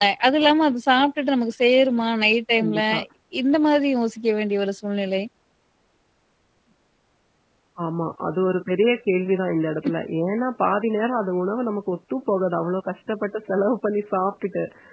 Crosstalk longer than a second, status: none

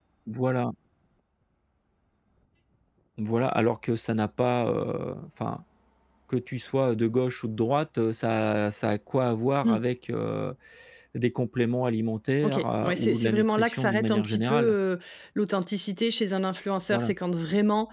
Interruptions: present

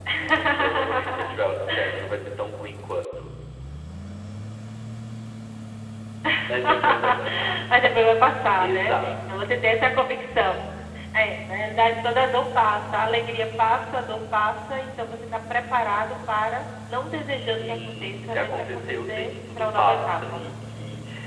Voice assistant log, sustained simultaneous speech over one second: present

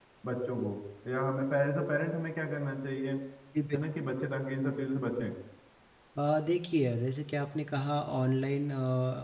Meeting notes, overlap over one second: none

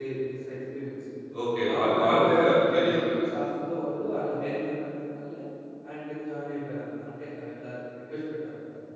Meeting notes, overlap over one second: present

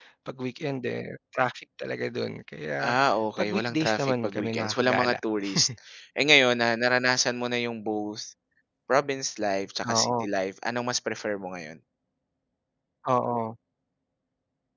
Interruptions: present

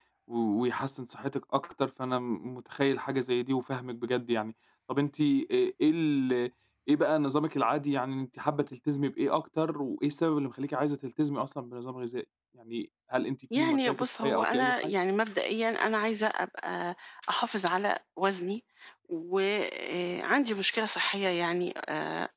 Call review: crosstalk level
present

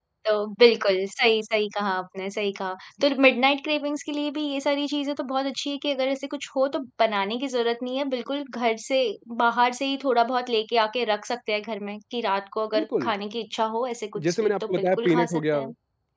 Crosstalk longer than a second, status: present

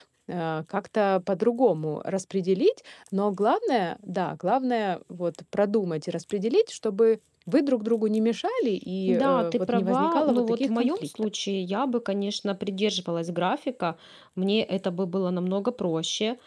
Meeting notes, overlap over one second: present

